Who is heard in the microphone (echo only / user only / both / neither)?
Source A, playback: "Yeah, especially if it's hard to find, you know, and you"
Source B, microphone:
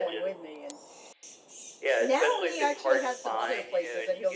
both